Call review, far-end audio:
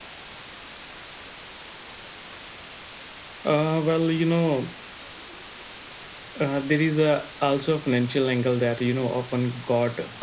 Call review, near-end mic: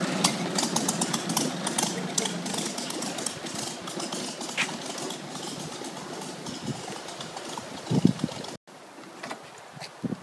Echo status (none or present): none